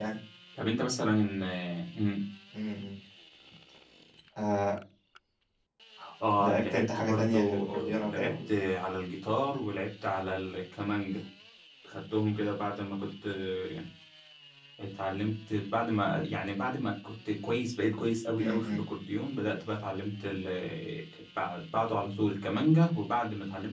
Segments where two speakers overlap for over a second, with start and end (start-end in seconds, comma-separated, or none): 6.4-8.3